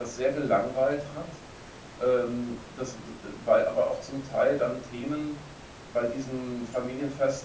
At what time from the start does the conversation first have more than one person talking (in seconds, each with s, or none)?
none